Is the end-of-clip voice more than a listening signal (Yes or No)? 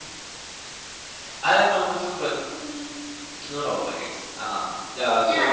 Yes